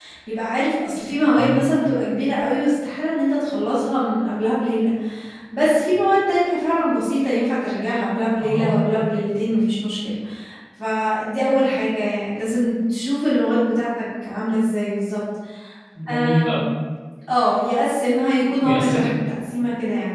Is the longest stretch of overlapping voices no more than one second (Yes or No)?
Yes